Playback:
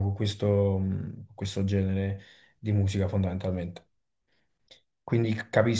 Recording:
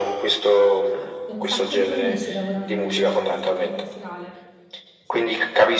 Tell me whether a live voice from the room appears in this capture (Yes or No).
Yes